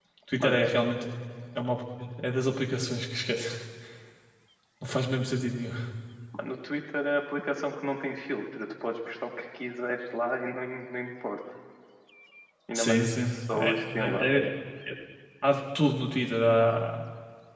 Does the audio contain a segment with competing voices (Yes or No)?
Yes